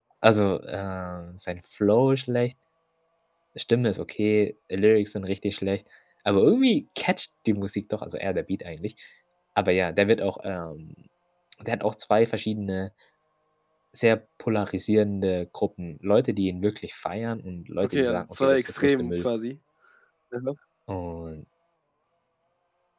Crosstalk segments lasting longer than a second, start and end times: 17.8-19.3

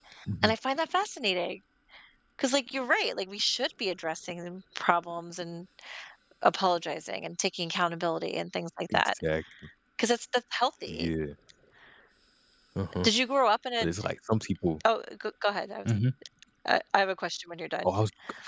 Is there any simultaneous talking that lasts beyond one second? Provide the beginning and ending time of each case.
none

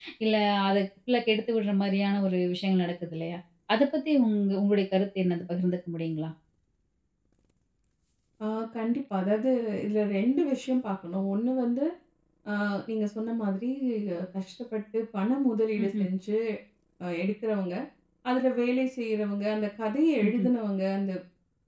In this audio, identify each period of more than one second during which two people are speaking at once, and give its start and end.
none

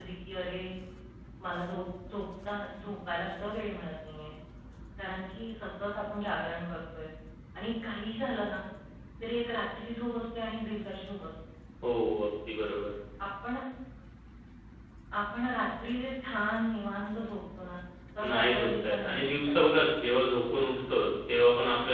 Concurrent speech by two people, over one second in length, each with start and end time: 18.2-19.6

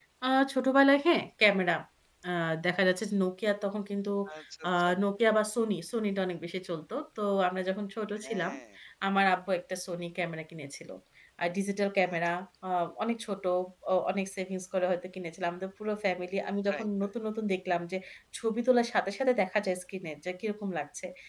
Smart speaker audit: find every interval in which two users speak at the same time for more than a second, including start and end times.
none

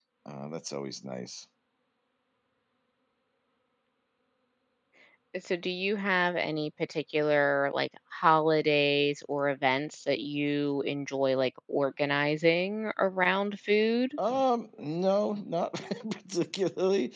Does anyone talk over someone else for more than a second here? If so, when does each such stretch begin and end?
none

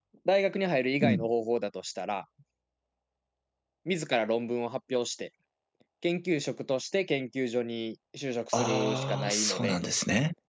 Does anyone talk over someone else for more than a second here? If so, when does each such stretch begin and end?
8.5-9.8

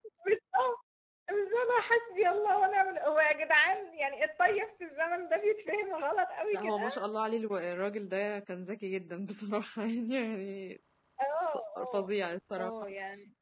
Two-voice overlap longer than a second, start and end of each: none

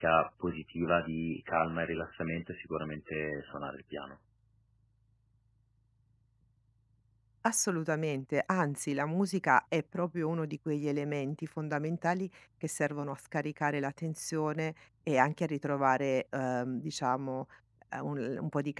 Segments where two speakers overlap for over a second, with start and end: none

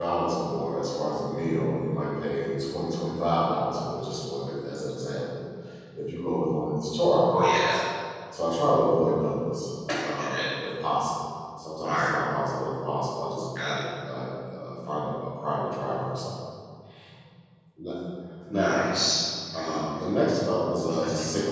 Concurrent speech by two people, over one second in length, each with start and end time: none

